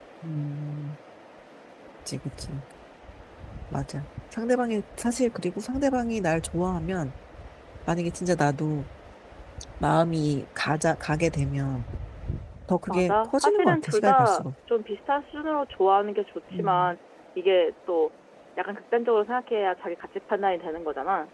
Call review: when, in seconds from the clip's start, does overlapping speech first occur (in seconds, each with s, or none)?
12.9 s